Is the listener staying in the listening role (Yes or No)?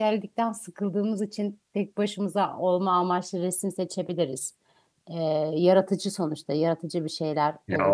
No